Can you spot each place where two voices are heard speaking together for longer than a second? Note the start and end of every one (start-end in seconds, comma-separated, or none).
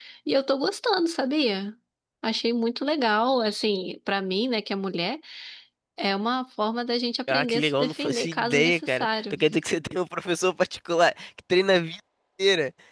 7.3-9.3